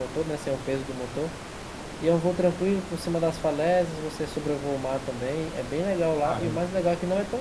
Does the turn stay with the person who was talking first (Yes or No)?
Yes